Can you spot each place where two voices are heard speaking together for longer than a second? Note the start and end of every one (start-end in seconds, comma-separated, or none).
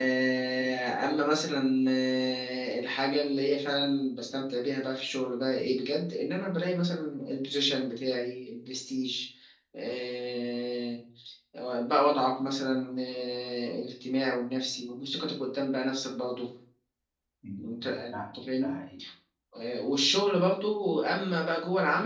17.6-18.8